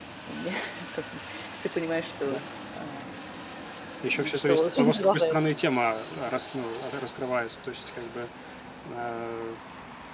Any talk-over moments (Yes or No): Yes